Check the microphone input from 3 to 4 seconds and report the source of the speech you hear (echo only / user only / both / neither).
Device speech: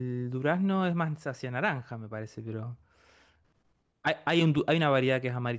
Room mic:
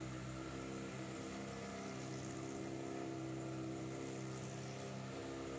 neither